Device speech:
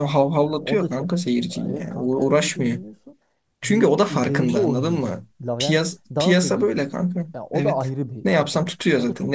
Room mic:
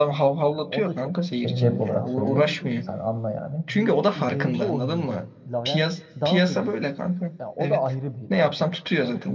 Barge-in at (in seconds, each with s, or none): 1.3 s